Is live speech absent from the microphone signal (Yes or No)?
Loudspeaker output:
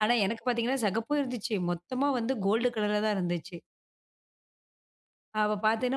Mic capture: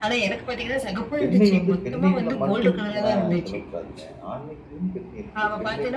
No